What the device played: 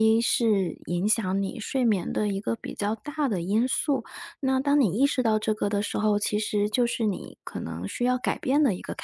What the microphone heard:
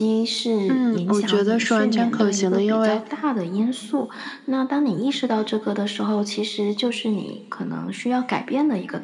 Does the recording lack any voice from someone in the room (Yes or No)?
No